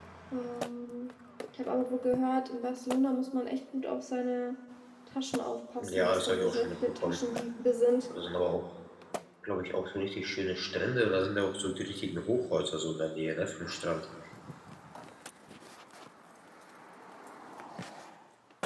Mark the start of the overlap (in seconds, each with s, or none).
5.9 s